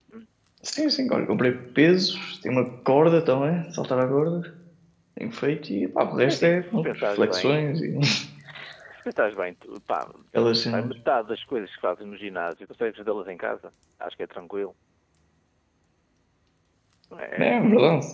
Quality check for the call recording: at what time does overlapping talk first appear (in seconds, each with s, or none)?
6.2 s